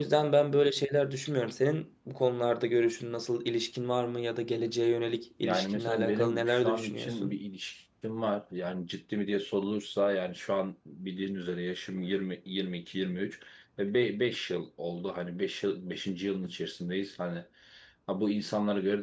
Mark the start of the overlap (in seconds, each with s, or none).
5.4 s